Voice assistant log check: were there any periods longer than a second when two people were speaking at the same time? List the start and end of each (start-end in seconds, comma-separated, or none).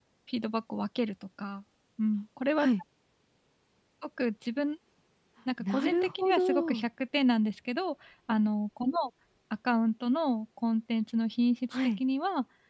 5.6-6.9